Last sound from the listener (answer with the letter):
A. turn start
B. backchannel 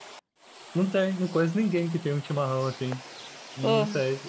B